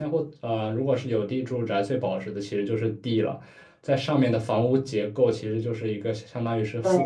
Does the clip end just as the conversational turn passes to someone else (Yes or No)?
No